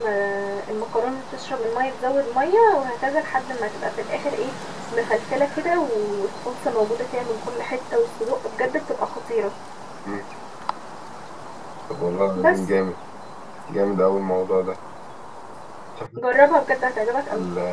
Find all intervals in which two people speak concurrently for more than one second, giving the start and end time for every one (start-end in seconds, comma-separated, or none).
none